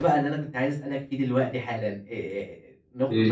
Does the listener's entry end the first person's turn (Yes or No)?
No